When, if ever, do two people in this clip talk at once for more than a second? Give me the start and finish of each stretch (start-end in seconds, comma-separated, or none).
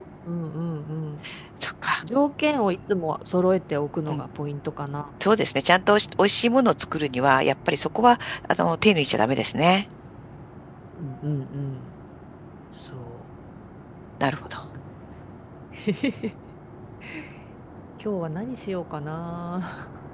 none